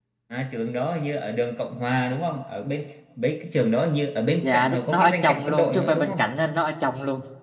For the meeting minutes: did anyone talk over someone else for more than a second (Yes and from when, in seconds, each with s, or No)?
Yes, from 4.4 s